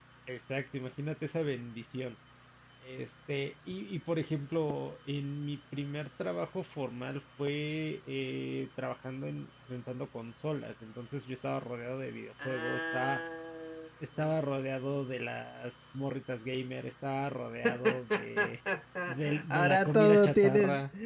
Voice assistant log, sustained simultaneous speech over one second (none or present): present